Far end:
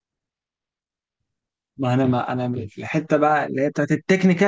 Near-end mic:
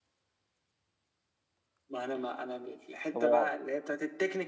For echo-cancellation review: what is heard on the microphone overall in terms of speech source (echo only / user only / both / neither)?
both